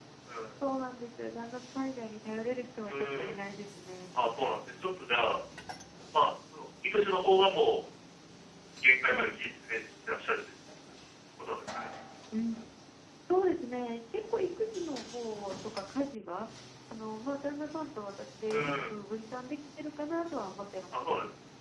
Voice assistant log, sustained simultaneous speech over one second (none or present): none